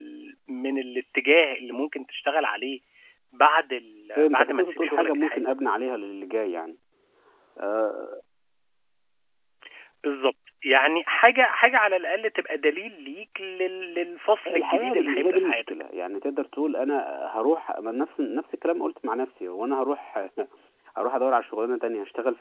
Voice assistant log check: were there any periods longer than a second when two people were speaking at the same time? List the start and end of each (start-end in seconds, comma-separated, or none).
4.2-5.4, 14.5-15.7